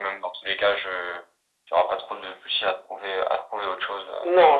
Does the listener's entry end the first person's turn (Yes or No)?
Yes